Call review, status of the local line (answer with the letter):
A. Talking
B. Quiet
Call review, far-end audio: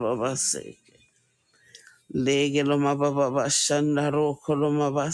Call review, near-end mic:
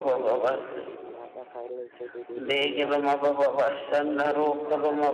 A